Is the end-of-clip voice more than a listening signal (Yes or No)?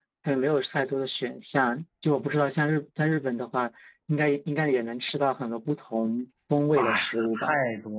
Yes